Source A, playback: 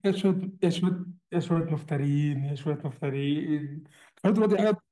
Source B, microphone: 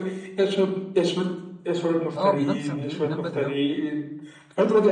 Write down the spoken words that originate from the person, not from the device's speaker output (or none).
آه بينام 9 بالليل بينام بدري أوي